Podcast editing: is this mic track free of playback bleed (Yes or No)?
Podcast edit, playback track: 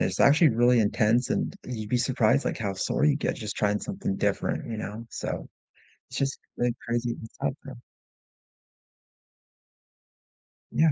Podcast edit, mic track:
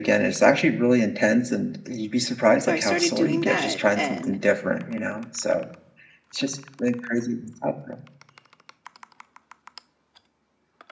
No